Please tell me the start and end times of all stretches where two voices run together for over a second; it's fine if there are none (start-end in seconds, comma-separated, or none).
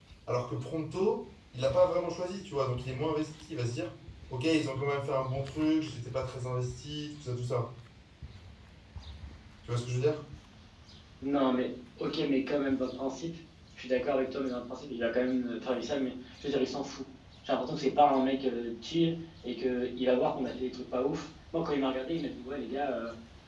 none